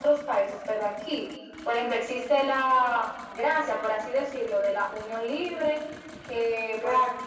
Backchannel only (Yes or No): Yes